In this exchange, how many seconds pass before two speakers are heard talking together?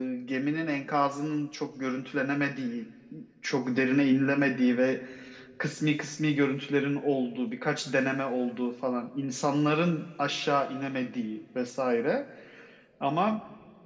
none

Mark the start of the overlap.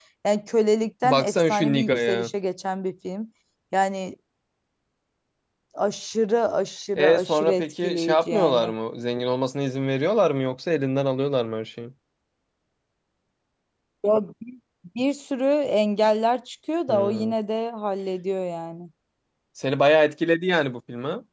1.0 s

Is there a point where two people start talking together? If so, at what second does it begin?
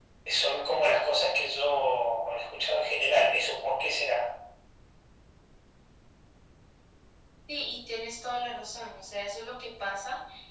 none

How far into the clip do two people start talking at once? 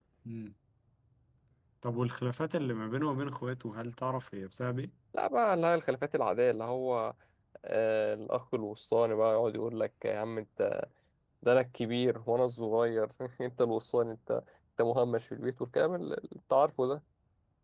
none

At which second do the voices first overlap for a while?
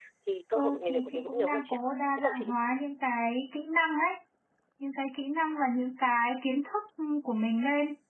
0.5 s

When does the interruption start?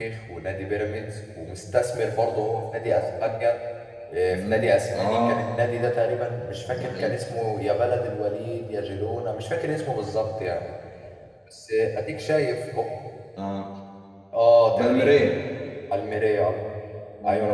4.3 s

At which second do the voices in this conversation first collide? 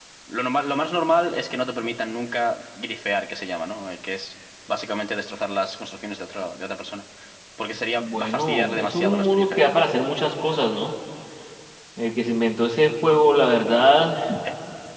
8.0 s

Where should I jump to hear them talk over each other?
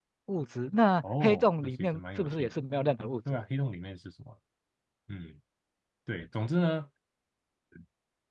1.2 s

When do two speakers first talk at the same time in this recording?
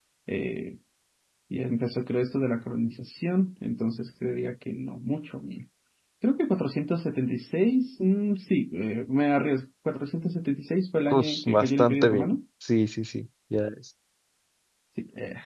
11.1 s

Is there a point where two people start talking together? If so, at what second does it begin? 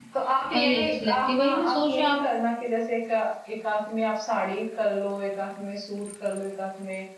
0.5 s

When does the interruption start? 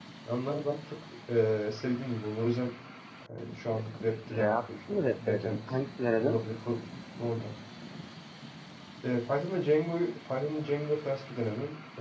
4.3 s

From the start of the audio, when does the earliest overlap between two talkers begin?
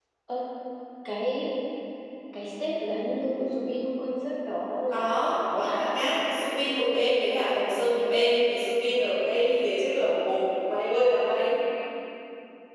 4.9 s

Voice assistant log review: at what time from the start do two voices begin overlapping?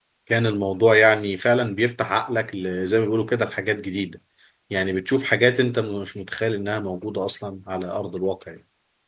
none

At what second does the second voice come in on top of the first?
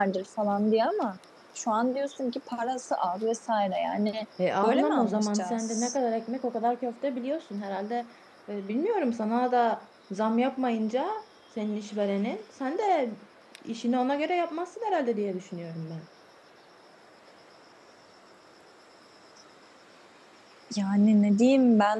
4.6 s

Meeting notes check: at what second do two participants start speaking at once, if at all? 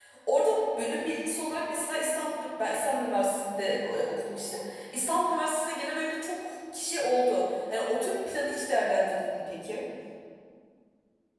none

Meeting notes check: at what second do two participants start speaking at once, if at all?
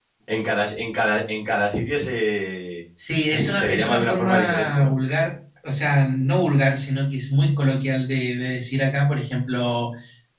3.5 s

